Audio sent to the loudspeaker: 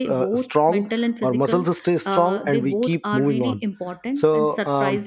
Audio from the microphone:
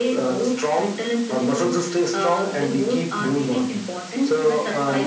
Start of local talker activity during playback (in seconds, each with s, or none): 4.1 s